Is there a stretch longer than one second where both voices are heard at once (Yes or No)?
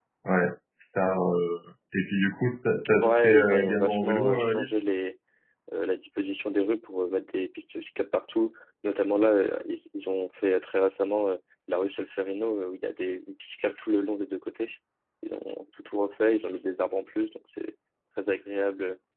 Yes